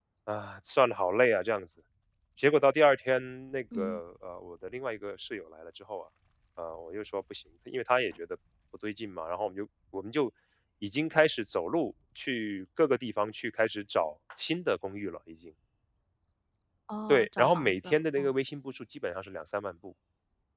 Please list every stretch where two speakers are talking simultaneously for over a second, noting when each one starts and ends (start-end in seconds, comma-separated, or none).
17.1-18.3